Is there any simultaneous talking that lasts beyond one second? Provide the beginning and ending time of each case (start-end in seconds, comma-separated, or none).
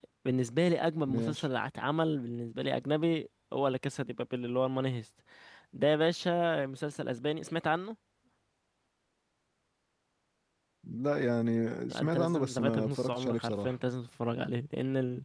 11.9-13.7